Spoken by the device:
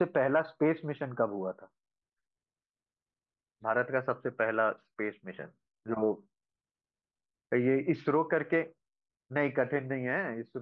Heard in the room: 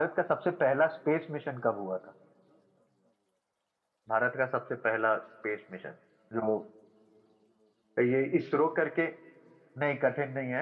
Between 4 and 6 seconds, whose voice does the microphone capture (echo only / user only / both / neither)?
echo only